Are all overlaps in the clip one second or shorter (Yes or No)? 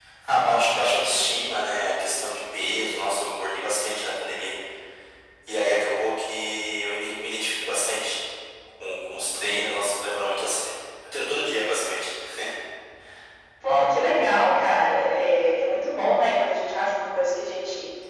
Yes